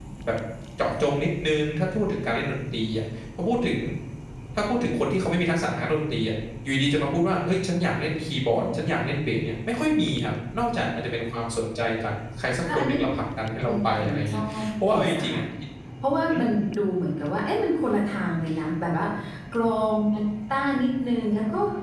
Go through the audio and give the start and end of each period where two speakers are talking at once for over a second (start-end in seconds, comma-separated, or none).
13.6-15.4